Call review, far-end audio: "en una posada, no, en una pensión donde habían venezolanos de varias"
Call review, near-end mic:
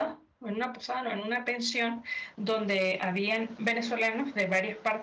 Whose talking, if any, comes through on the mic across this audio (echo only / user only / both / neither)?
echo only